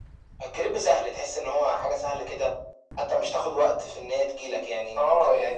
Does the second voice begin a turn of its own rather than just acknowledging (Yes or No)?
Yes